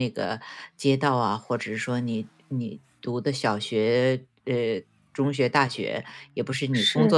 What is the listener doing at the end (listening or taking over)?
listening